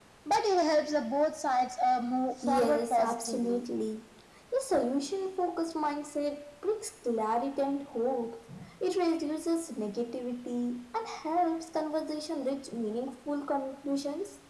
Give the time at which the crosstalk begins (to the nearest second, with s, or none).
2 s